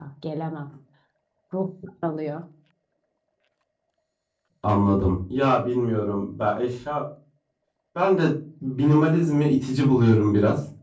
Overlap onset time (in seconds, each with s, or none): none